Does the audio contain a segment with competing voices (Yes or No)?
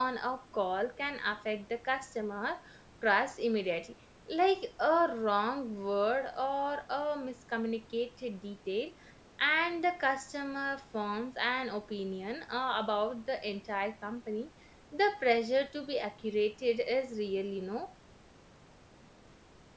No